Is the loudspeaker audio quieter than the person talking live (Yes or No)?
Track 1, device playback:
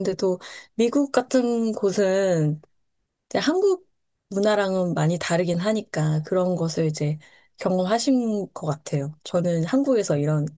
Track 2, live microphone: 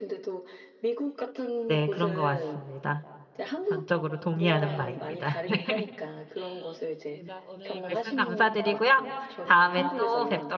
Yes